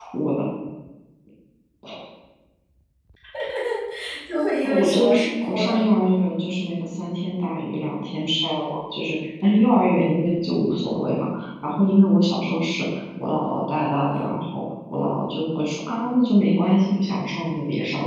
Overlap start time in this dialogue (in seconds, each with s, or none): 4.6 s